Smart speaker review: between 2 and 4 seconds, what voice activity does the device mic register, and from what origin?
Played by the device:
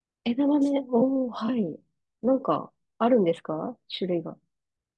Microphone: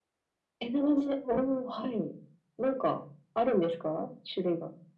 echo only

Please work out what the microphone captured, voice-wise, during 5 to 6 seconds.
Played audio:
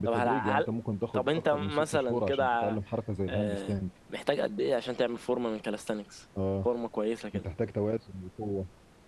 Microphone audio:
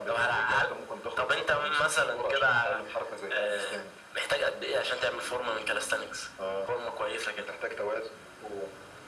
echo only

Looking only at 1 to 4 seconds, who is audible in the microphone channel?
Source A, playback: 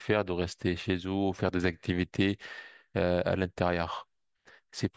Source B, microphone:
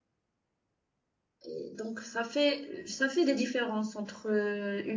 user only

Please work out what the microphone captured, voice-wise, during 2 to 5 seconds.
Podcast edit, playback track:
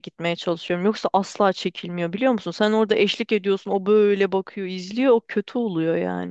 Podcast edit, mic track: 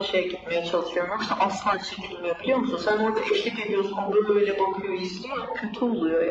echo only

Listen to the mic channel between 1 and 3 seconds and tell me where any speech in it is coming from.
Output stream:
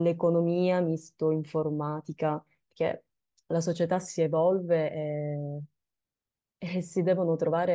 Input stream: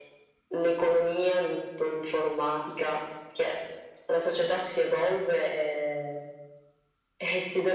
echo only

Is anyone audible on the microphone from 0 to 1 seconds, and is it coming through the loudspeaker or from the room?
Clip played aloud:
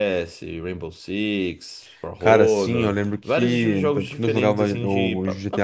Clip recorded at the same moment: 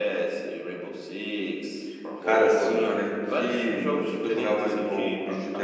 echo only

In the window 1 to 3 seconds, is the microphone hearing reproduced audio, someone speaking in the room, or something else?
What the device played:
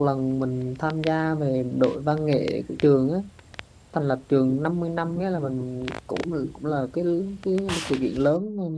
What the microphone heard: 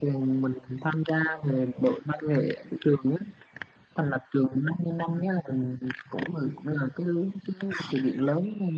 echo only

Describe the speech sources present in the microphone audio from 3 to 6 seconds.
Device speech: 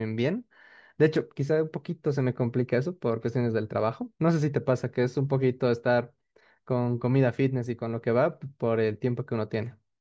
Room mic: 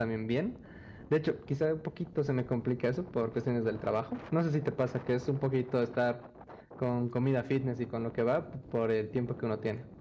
echo only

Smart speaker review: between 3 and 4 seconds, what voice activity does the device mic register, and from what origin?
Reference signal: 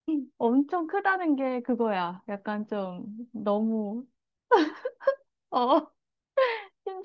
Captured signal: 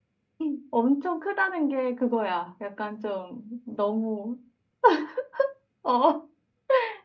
echo only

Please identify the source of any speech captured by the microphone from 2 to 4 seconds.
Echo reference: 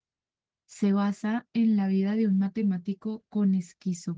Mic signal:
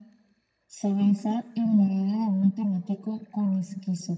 echo only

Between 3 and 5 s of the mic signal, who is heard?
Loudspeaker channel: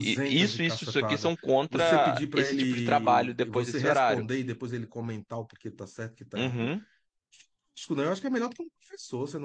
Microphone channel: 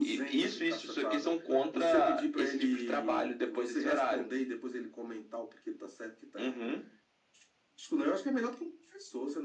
echo only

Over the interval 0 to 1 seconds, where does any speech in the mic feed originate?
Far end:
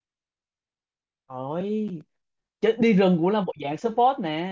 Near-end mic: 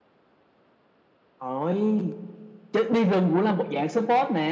neither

